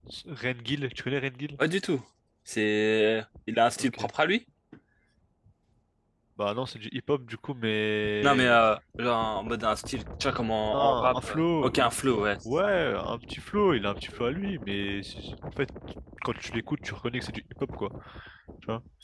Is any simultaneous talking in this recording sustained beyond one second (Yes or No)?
Yes